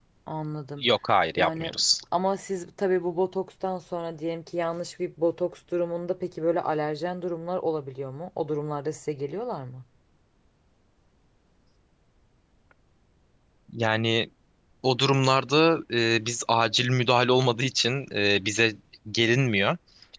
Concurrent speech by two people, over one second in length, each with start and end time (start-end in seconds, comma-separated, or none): none